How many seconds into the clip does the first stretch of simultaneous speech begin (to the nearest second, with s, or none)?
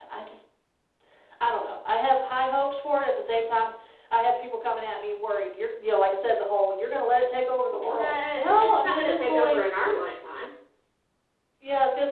8 s